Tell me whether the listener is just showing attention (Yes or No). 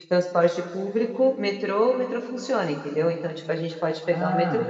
Yes